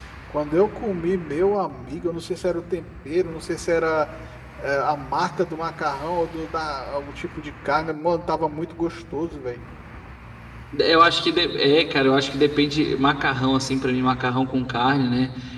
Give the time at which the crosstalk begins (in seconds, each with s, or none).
none